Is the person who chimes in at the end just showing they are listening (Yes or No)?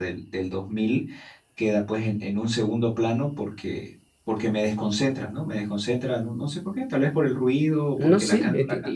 No